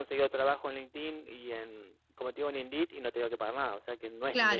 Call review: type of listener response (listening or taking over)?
taking over